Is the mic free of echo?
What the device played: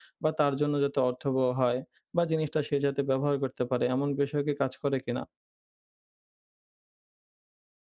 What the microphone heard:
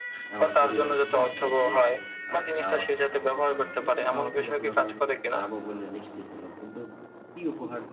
No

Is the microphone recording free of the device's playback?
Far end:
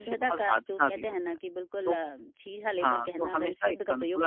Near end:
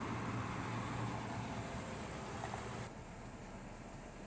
Yes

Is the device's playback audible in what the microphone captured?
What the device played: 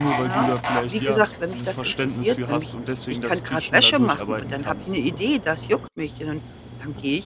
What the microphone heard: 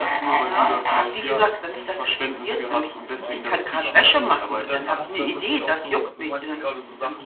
Yes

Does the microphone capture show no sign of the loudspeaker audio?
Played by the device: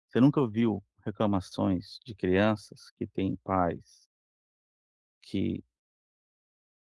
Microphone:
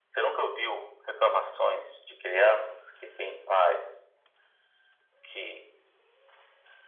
No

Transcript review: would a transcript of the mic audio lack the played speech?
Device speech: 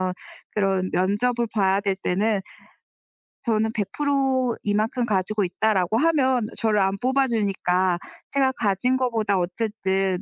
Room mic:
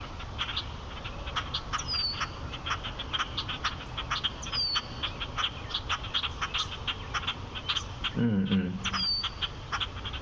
Yes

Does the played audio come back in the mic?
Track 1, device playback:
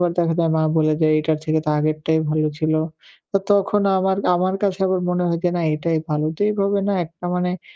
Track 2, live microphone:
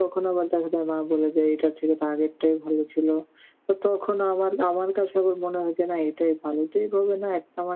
Yes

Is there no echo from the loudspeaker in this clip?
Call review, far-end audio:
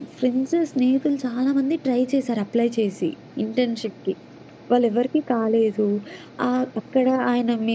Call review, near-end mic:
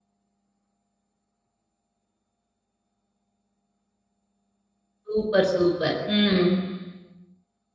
Yes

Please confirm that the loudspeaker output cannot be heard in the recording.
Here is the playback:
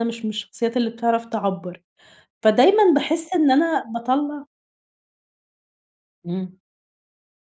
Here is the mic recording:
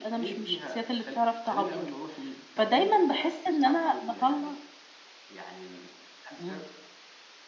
No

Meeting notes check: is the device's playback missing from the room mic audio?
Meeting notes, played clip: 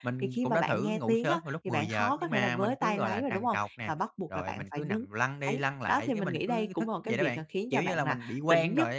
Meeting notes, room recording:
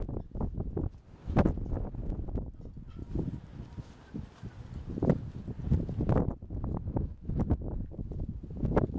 Yes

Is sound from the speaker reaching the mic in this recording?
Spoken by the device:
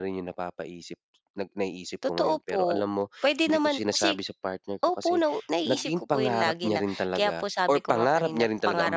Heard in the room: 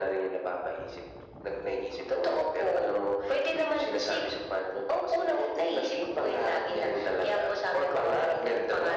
Yes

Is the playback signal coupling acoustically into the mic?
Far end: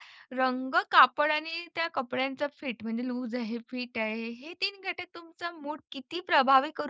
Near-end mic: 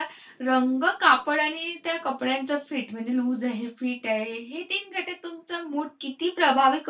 Yes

